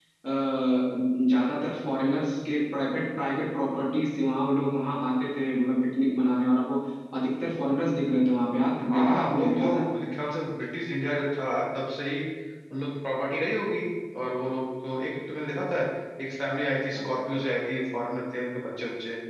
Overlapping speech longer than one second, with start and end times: 8.9-10.1

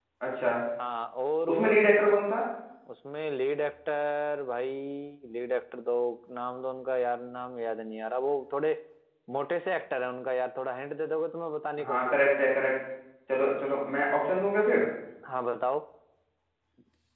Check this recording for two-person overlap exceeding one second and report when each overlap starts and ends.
none

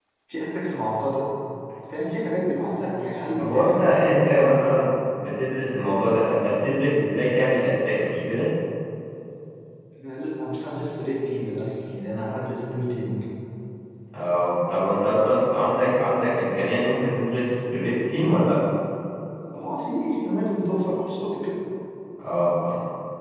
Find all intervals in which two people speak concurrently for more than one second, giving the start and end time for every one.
3.4-4.6

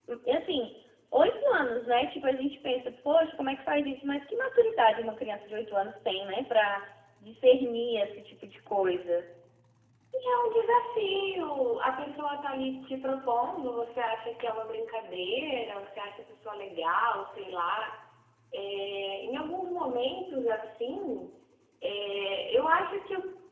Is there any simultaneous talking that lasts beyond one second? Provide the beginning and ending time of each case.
none

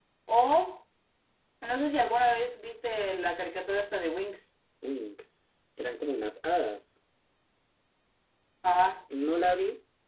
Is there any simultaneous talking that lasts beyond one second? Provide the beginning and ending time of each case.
none

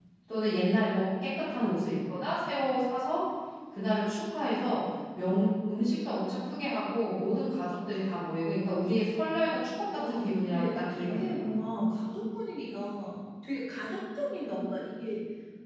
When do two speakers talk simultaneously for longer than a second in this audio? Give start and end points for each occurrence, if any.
9.9-11.2

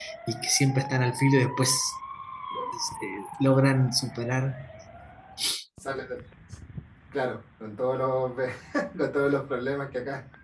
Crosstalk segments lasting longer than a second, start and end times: none

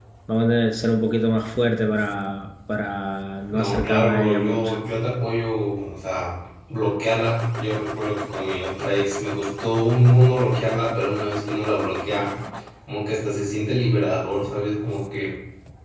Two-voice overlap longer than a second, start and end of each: 3.5-4.7

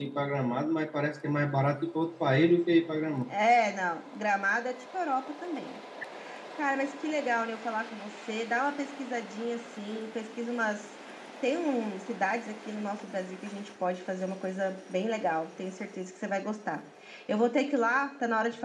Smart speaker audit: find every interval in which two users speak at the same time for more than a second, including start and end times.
none

